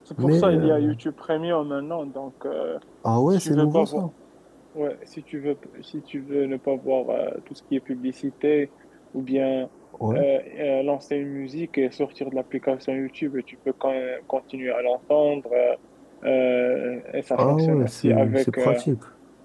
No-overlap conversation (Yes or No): No